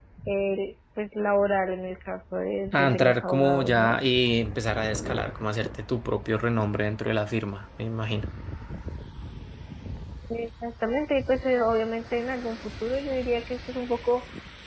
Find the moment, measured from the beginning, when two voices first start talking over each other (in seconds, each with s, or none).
2.7 s